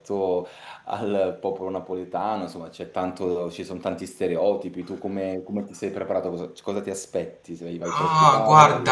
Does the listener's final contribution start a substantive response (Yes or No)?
Yes